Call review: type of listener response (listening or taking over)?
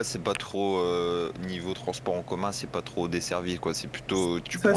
taking over